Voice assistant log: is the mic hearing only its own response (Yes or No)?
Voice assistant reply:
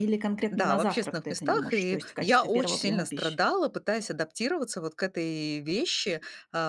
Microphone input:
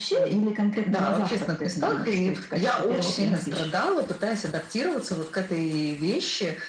Yes